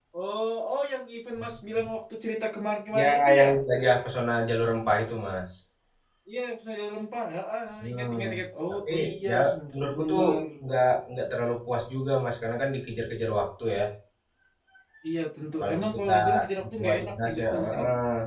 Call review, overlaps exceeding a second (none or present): present